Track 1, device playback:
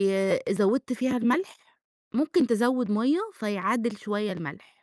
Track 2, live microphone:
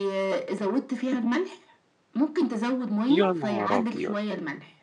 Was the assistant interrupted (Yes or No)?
Yes